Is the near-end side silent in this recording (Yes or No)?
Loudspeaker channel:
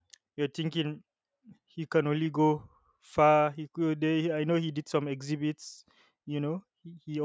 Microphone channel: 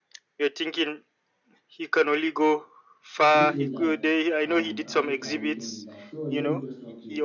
No